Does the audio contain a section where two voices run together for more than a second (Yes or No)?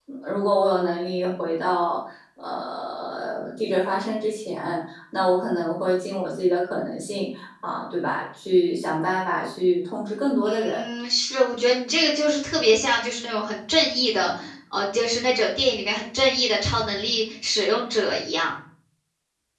No